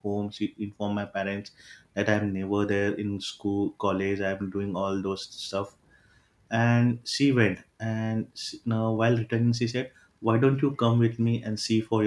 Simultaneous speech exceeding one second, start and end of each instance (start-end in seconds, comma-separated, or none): none